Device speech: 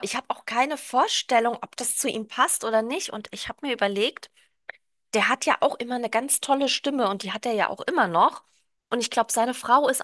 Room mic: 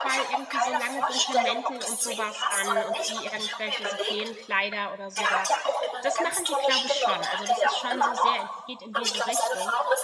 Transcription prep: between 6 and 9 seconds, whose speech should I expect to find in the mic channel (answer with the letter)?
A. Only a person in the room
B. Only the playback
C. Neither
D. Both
D